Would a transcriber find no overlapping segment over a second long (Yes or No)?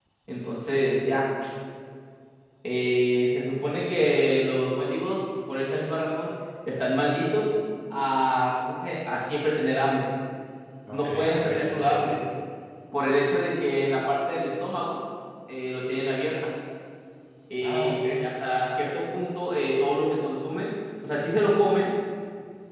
No